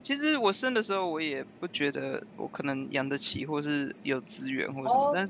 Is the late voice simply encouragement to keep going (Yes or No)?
Yes